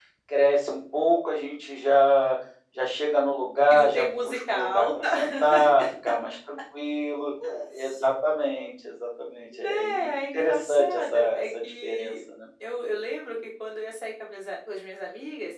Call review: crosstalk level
present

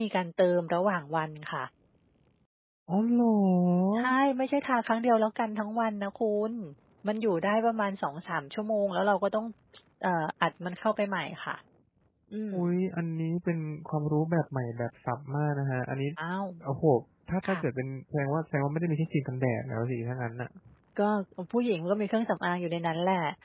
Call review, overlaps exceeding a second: none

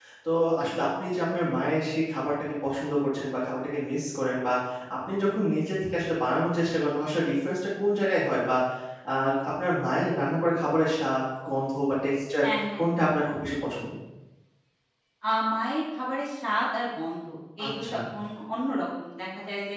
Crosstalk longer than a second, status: none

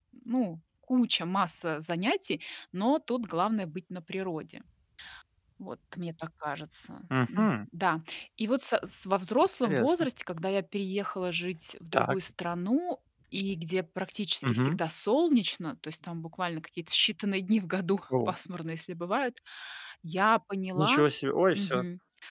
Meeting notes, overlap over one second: none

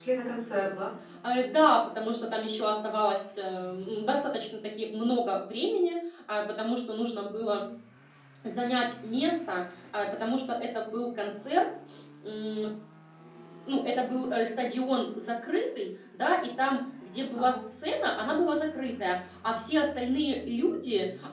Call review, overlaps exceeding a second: none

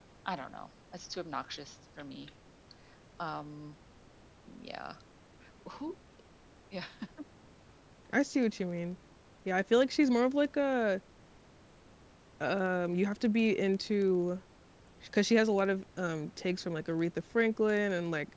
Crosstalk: none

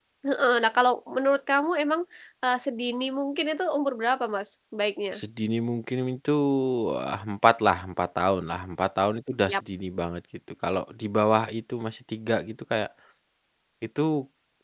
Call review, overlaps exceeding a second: none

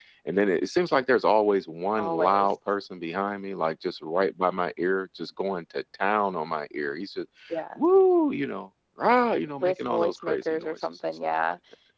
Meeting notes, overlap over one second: present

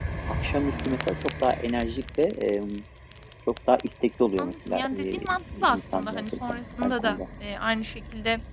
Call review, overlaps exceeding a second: present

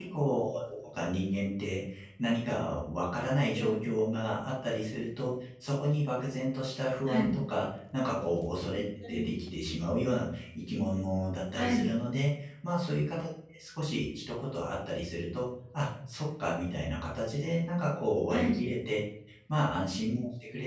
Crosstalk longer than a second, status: none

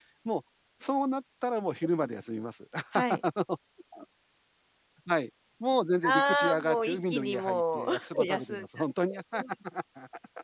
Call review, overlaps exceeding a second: present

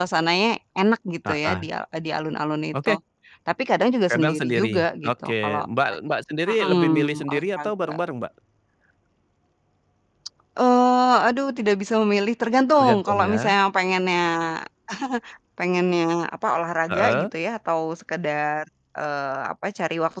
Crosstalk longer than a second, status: present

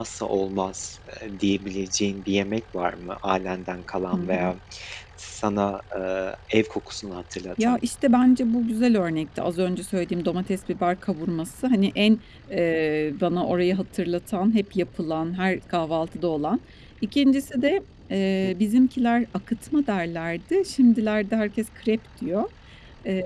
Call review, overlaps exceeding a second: none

